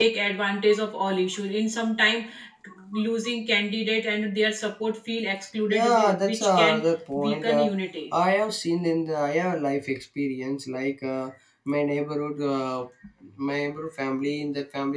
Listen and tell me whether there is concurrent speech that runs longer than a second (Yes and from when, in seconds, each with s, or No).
Yes, from 5.7 s